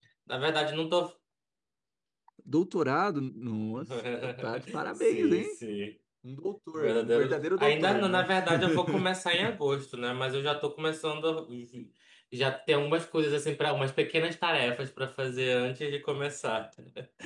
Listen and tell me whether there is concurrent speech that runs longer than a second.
Yes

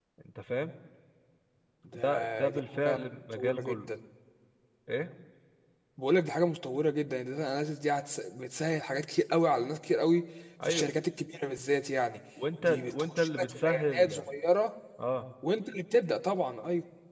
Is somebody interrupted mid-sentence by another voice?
Yes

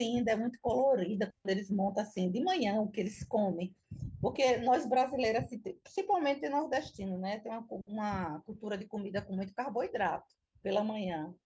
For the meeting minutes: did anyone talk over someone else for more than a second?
No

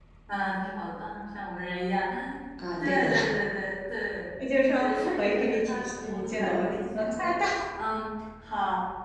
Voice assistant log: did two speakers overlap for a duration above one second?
Yes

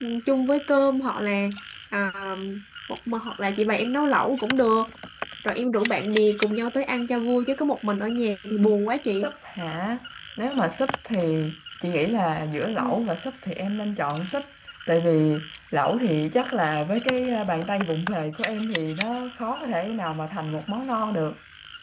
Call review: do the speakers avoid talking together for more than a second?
Yes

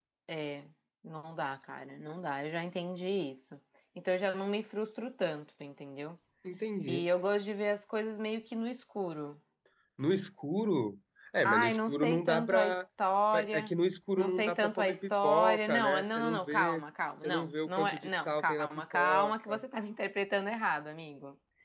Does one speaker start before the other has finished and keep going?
Yes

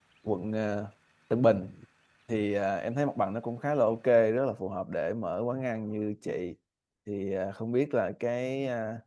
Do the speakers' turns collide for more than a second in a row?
No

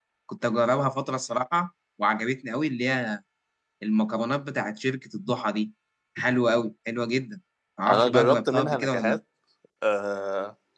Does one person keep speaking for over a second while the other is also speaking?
Yes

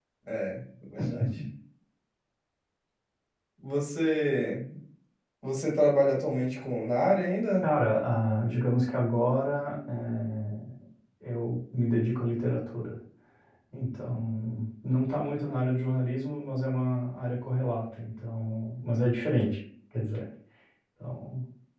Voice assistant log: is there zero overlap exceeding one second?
Yes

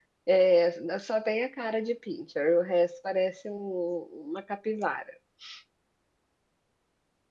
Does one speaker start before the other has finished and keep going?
No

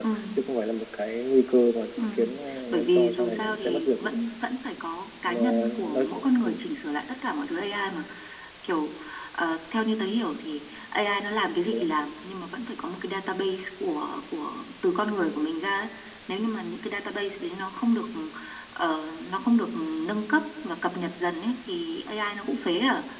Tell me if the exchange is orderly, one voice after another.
No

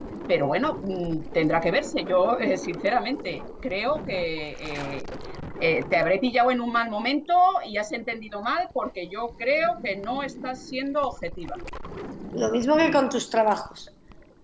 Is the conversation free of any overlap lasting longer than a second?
Yes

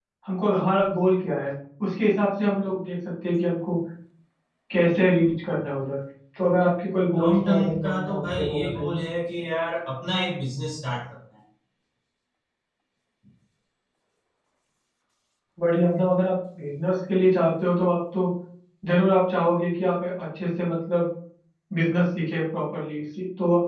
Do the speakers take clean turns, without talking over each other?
No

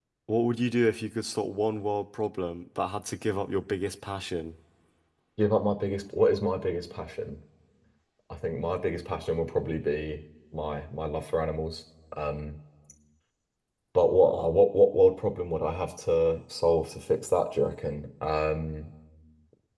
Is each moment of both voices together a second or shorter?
Yes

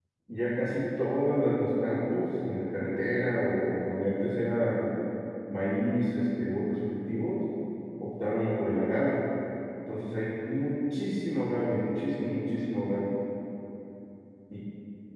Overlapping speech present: No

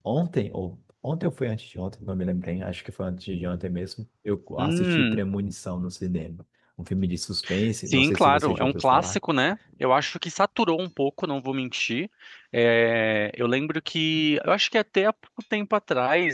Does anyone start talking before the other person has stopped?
Yes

